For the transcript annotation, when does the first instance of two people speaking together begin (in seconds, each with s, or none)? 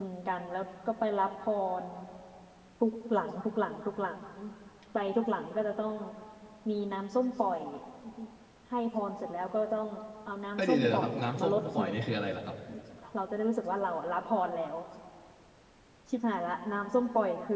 10.6 s